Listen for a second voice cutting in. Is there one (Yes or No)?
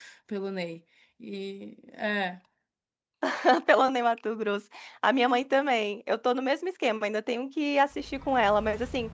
No